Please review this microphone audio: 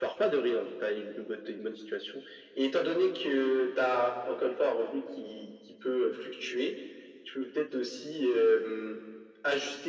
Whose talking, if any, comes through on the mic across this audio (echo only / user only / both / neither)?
echo only